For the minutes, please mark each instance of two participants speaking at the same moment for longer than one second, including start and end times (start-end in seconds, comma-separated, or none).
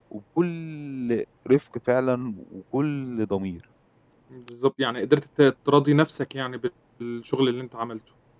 none